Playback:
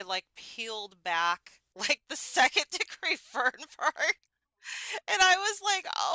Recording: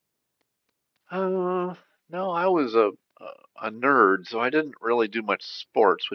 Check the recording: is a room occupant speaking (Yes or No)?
Yes